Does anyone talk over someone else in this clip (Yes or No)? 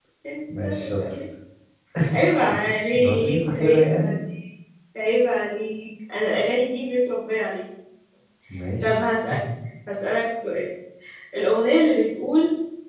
Yes